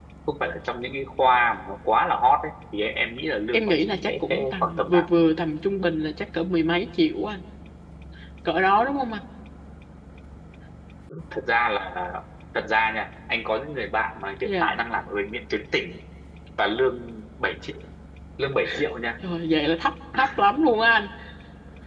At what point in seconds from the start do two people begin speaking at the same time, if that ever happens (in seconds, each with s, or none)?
3.5 s